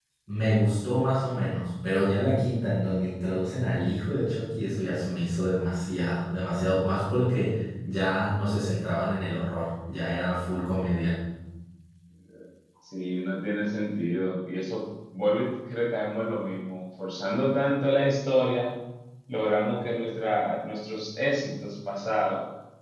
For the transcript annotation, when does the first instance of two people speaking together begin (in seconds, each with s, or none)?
none